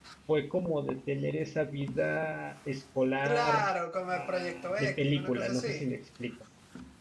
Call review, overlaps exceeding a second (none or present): present